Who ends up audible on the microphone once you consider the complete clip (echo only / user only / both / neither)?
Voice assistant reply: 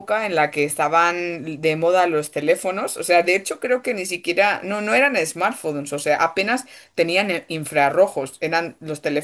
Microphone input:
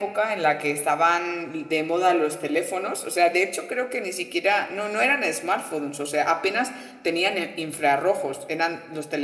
echo only